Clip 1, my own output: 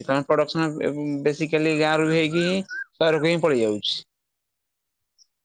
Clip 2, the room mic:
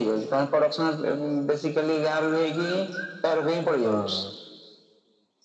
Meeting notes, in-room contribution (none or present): present